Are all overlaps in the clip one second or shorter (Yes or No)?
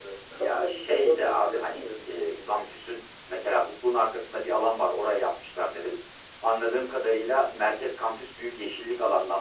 No